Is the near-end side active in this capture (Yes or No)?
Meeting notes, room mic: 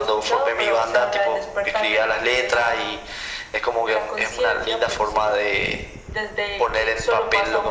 No